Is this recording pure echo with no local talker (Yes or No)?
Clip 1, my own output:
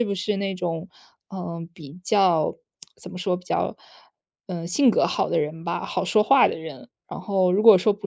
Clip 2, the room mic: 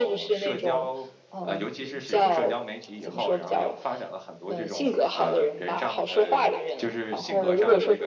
No